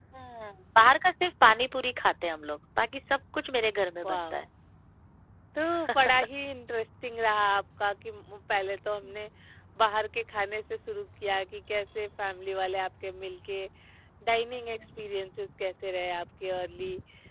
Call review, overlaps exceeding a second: none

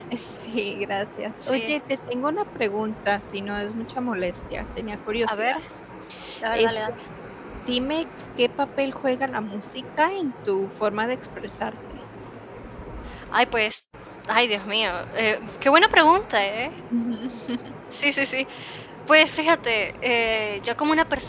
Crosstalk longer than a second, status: none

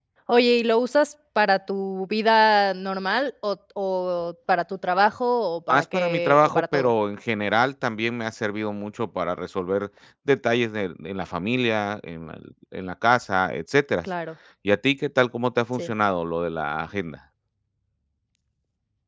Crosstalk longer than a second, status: present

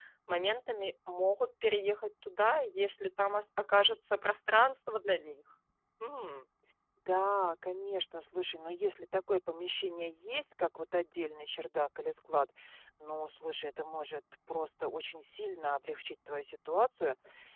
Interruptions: none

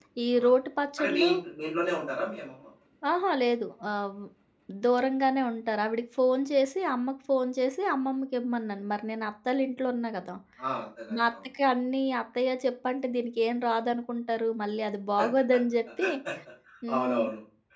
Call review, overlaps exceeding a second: none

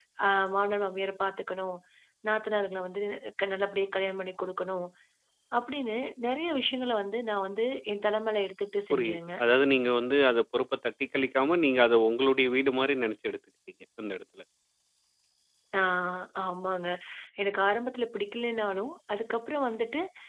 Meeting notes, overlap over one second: none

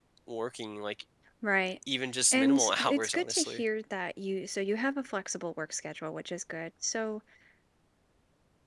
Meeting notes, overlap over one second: present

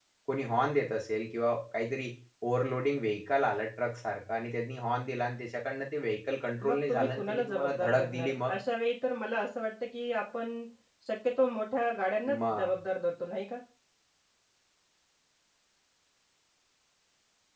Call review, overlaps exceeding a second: present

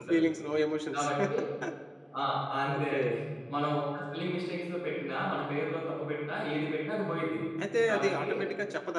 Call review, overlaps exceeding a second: none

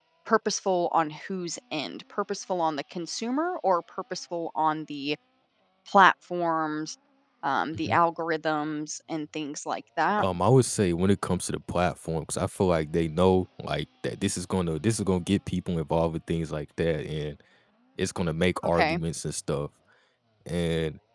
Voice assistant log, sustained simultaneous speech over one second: none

